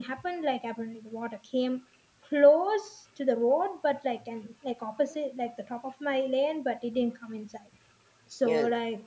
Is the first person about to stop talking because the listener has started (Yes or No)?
No